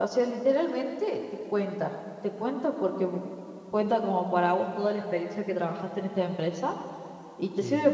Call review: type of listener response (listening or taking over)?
listening